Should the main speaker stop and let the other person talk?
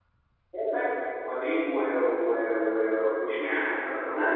Yes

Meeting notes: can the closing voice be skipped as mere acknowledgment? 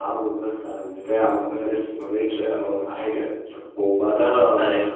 No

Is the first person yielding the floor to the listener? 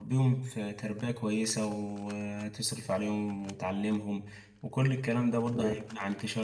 No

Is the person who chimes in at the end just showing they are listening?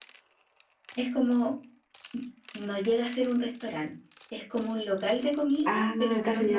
No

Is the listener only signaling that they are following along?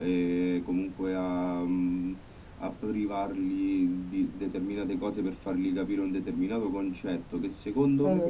Yes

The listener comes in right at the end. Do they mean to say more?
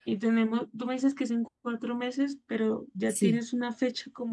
No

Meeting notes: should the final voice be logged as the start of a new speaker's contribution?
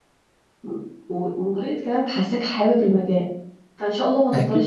No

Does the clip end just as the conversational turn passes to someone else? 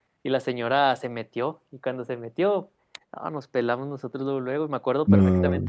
No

